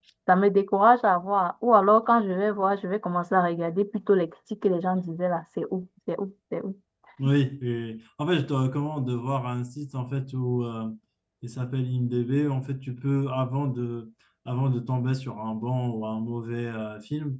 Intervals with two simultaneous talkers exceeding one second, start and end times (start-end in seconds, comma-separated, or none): none